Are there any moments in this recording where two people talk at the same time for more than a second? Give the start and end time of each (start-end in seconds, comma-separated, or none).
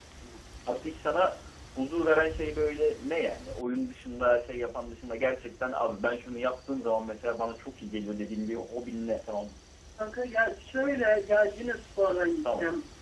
none